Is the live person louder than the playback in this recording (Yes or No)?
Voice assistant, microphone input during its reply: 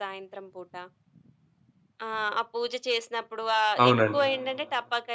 Yes